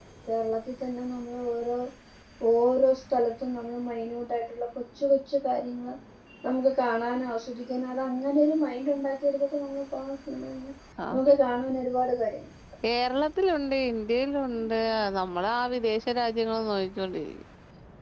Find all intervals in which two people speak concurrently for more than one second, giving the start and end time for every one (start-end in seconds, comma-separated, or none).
none